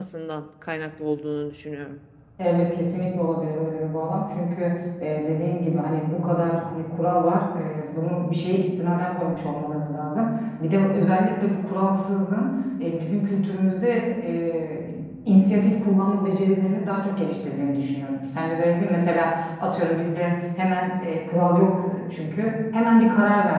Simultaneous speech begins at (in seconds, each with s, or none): none